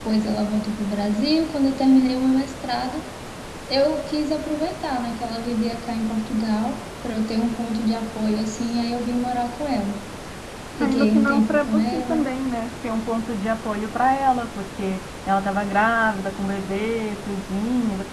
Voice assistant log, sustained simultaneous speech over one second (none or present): present